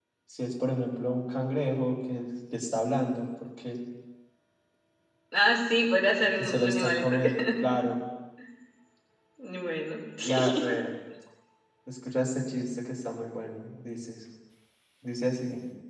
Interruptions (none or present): present